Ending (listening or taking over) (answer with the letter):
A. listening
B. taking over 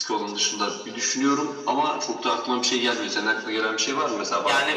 B